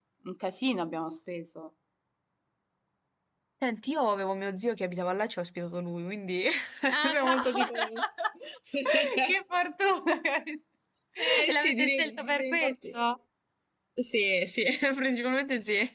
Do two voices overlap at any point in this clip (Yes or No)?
Yes